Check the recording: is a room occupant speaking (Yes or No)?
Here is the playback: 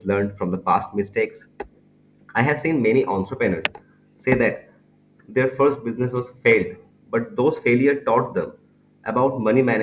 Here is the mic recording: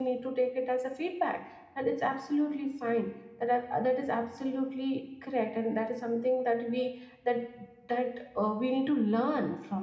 Yes